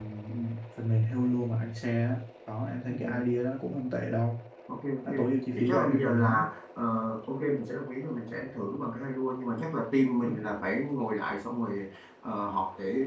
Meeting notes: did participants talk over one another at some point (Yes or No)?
Yes